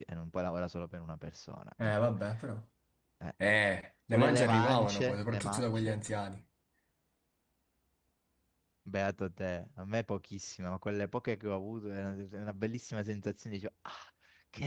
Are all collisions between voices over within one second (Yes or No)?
No